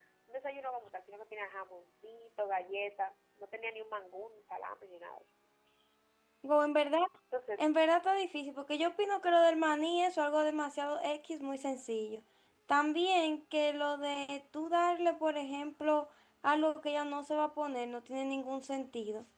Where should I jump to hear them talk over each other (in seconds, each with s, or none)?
none